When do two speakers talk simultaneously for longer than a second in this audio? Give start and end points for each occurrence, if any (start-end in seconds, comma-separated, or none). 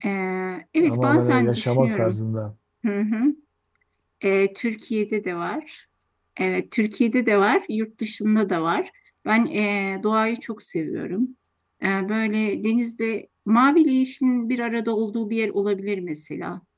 0.8-2.2